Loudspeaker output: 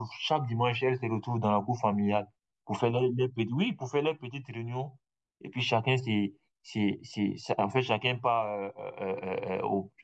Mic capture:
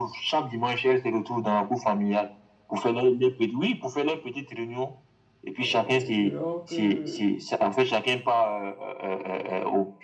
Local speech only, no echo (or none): euh, dehors que,